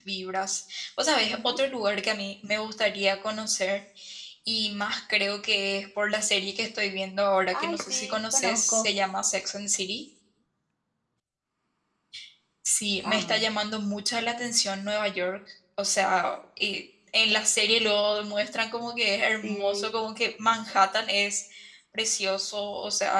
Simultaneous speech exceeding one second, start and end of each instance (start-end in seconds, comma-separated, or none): 7.6-8.9